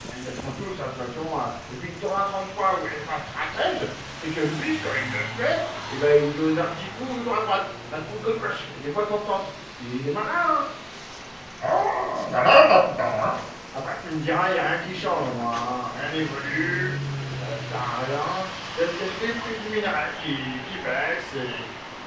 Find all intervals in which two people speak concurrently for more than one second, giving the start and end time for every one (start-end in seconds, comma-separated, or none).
none